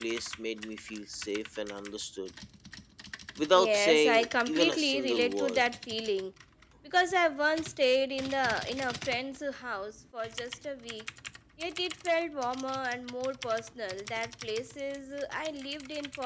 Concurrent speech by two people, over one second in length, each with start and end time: 3.5-5.7

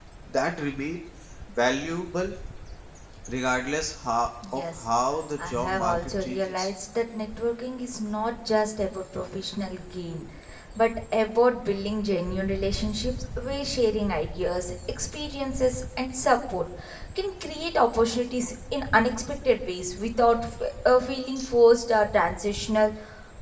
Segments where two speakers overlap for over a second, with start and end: 5.4-6.7

